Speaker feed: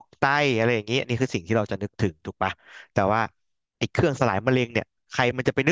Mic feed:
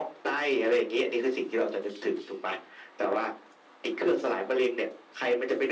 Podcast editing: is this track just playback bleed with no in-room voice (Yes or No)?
Yes